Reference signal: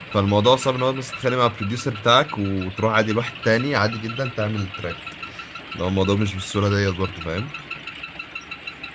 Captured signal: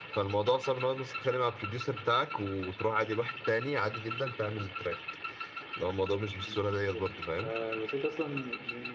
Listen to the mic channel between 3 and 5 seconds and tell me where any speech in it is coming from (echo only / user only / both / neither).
echo only